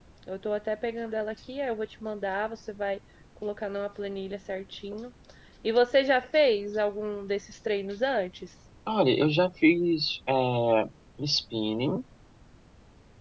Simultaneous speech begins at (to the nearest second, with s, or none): none